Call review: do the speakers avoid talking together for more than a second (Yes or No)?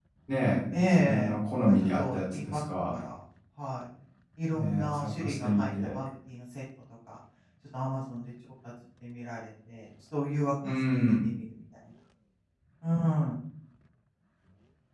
No